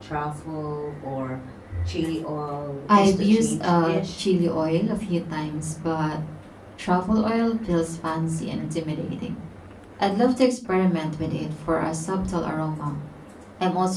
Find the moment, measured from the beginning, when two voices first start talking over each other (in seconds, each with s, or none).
2.9 s